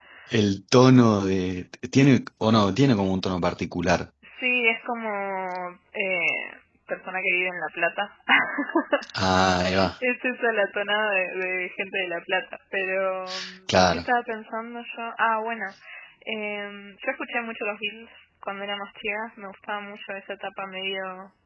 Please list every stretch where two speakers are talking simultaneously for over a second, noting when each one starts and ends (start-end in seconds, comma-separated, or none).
none